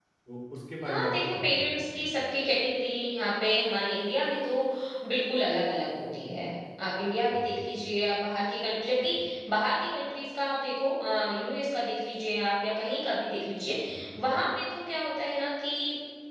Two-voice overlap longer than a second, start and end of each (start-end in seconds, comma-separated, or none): 0.8-2.1